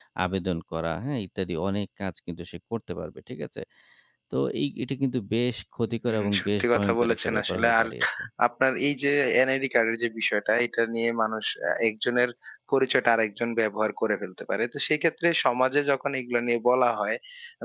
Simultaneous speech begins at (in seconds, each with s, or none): 6.1 s